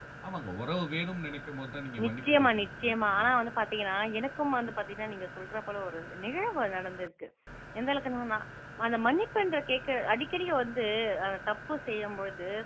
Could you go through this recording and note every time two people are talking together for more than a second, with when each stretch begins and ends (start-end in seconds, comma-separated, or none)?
2.0-3.3